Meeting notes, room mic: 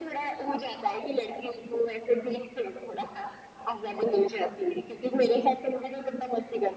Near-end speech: none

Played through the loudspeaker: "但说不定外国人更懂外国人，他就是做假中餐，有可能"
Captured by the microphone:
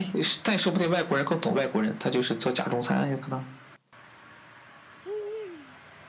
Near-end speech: none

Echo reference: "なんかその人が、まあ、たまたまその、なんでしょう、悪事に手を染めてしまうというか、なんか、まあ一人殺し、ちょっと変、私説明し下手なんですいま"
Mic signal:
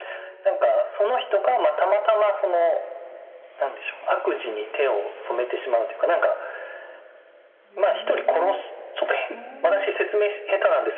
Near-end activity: present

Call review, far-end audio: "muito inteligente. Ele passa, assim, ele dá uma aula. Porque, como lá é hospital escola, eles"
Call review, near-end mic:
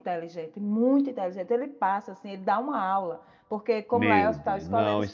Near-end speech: present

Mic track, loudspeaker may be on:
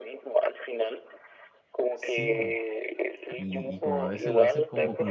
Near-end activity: present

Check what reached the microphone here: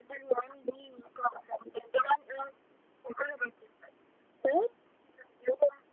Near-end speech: none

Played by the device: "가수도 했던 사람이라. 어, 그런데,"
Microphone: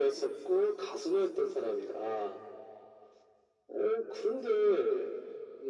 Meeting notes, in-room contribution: none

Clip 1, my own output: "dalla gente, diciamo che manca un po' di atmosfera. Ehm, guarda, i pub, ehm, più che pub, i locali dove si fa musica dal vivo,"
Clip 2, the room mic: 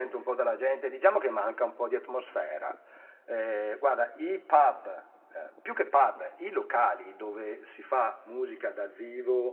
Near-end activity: none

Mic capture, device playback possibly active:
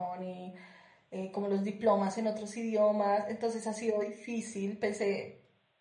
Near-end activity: present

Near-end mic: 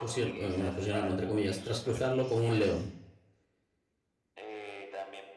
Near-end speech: present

